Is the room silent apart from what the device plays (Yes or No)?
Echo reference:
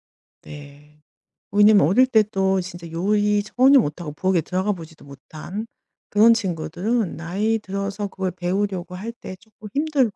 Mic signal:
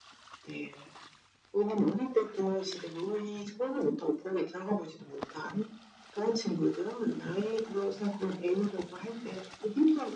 Yes